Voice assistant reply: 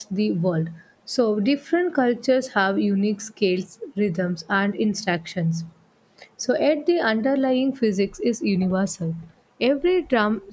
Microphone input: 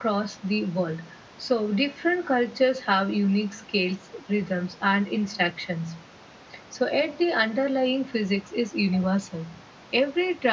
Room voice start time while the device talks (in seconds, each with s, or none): none